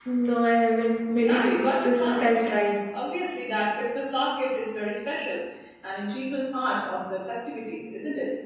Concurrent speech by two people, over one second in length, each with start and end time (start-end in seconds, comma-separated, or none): 1.2-2.5